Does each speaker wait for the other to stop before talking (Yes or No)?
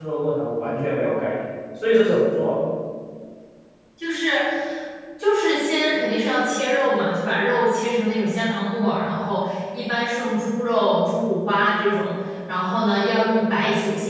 Yes